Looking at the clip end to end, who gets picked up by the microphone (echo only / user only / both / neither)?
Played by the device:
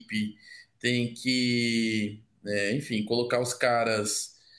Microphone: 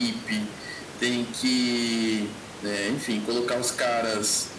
echo only